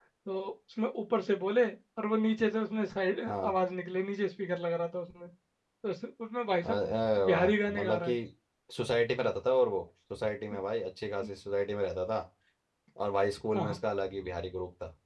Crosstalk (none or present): present